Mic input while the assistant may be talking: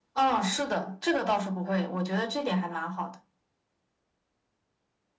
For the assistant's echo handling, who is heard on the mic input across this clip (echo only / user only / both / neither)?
echo only